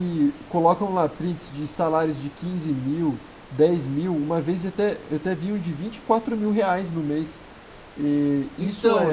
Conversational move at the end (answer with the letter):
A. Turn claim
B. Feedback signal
B